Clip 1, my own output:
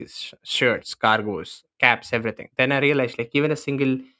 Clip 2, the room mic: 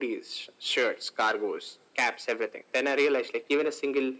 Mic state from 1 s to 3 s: echo only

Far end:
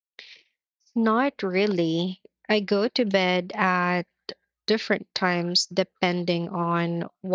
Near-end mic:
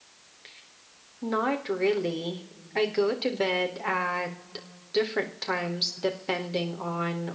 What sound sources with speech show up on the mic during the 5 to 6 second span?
echo only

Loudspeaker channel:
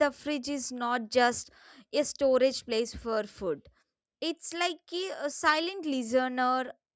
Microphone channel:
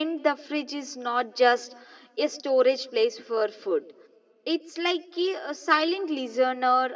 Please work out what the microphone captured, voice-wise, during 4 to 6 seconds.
echo only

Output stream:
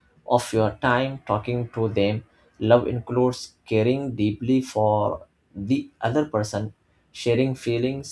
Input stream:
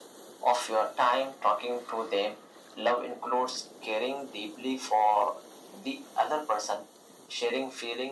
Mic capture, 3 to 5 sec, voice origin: echo only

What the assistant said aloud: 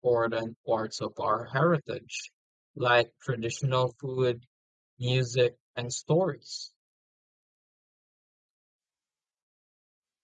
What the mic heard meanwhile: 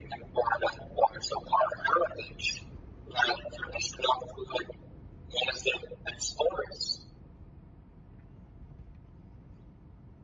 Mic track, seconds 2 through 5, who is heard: echo only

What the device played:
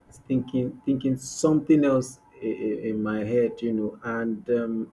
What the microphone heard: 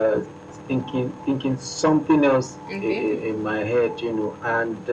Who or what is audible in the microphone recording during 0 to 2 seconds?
echo only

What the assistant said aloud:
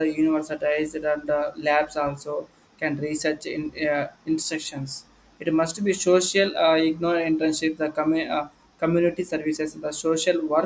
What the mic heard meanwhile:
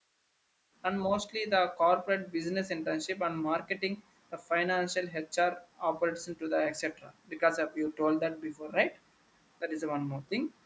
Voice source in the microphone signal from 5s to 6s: user only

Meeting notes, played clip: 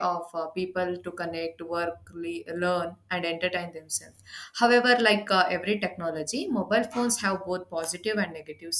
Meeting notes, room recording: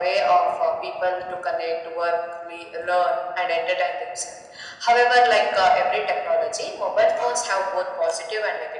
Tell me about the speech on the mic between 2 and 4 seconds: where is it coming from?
echo only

